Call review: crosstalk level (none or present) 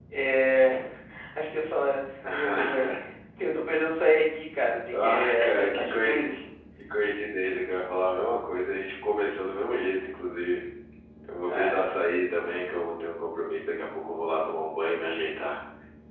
present